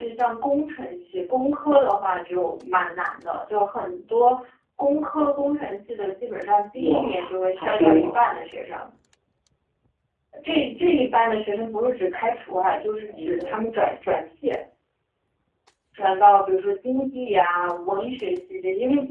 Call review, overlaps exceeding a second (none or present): present